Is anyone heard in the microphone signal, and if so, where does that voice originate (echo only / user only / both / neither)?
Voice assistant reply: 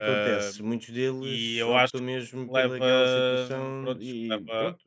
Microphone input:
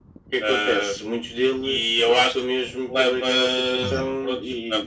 both